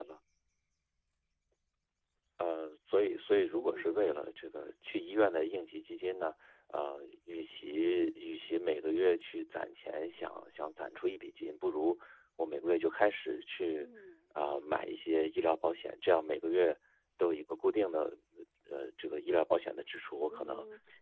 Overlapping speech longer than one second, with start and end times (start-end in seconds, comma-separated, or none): none